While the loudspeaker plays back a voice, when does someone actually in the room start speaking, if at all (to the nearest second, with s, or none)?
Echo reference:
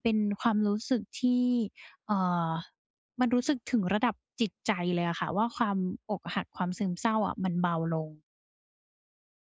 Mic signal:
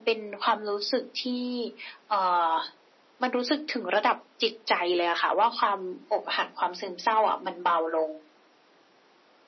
none